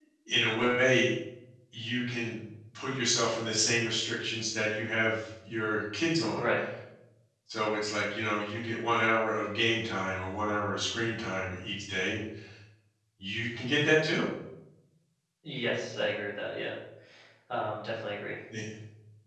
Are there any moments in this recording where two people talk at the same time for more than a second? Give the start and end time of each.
none

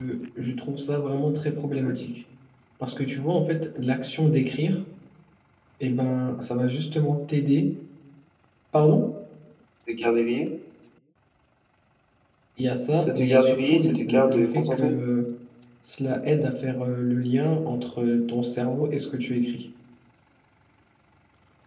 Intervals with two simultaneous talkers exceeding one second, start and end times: 13.0-14.9

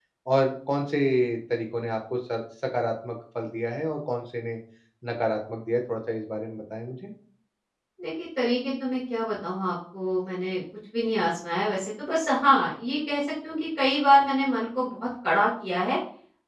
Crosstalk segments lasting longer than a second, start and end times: none

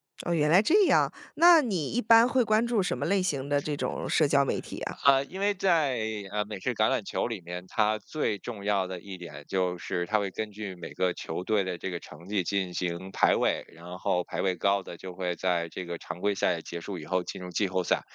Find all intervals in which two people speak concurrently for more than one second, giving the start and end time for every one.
none

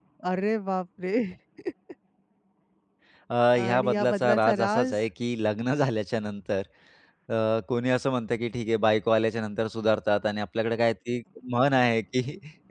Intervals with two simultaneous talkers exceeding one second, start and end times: 3.6-5.0

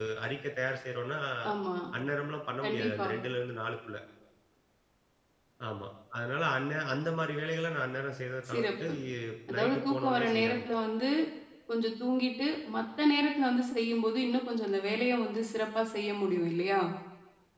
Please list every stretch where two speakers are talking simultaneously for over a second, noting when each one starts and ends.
9.5-10.7

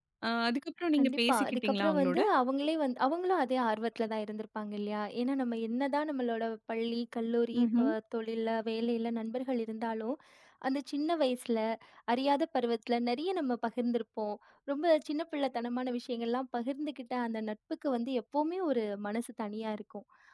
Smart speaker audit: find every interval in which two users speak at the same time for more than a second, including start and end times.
1.0-2.2

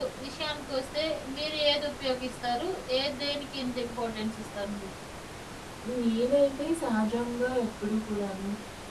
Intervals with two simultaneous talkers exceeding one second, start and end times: none

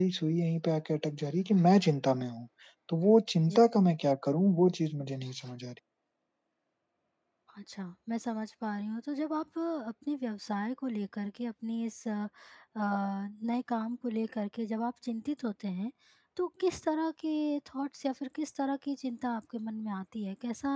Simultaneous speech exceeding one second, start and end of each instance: none

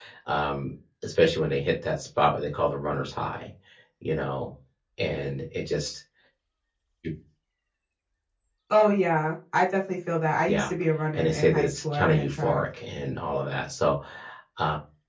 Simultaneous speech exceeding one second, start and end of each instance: 11.1-12.6

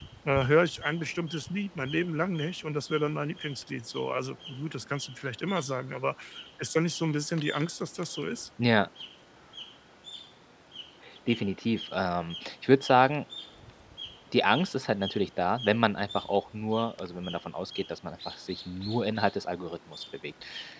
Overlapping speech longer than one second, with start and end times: none

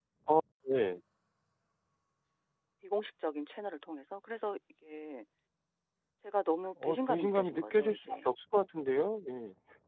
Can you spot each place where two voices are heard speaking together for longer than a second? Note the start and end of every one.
6.8-8.3

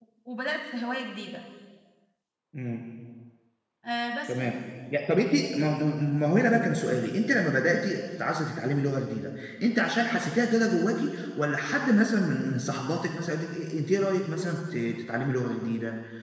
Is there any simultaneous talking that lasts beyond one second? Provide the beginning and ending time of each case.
none

